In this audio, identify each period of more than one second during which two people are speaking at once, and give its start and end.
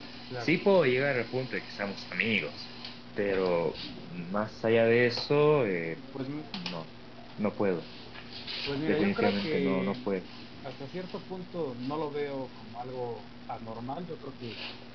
8.9-10.1

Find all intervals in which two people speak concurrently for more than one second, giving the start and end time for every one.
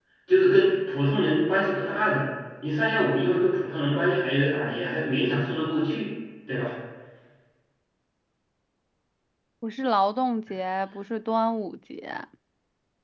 none

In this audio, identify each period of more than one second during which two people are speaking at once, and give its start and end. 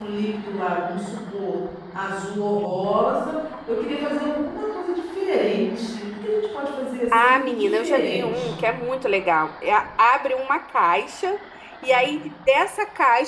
7.1-8.6

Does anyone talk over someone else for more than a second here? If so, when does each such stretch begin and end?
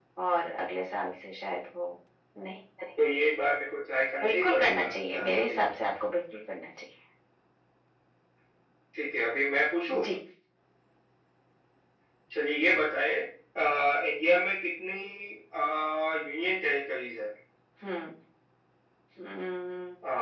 4.2-5.7

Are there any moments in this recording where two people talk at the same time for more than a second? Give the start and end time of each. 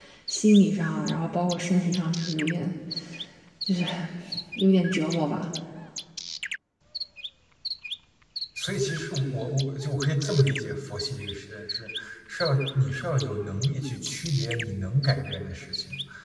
none

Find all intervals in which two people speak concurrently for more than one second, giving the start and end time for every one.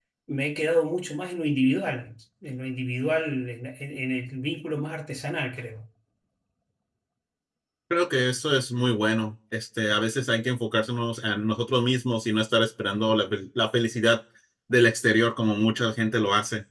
none

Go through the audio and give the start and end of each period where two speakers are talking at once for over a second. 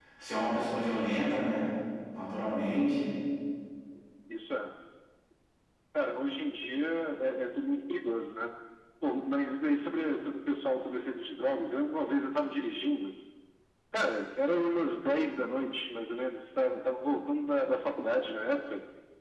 none

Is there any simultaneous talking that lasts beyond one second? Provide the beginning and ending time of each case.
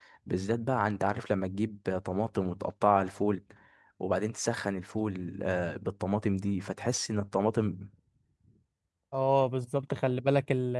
none

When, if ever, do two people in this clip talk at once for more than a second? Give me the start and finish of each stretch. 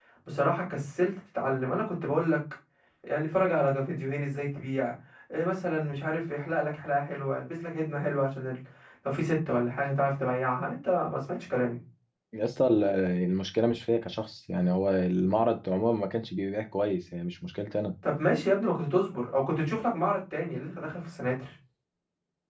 none

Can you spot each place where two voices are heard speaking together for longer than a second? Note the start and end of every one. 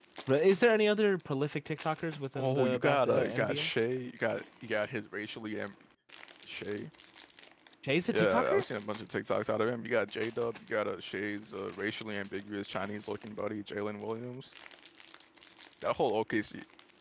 2.4-3.7

